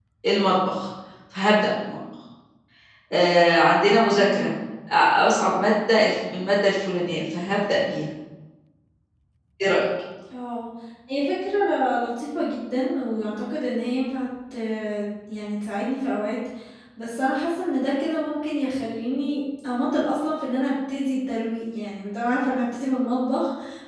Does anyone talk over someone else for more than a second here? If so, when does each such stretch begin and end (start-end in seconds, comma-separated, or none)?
none